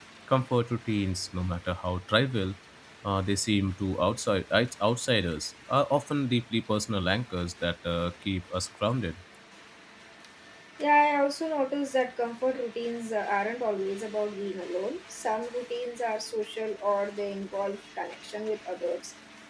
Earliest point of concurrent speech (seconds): none

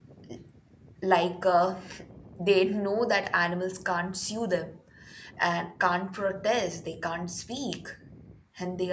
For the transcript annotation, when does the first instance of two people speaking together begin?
none

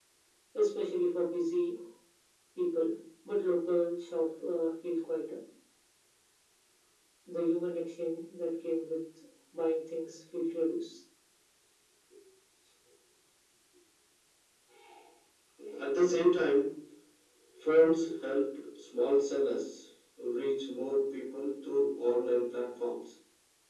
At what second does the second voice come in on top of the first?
none

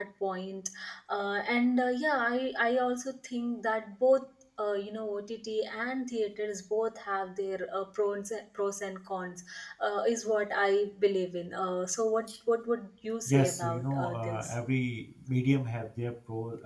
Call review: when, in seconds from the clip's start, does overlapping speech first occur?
13 s

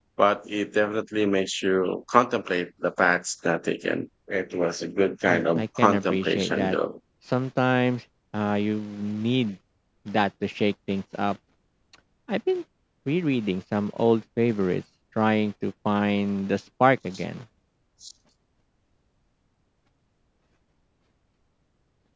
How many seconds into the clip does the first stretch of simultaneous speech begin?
5 s

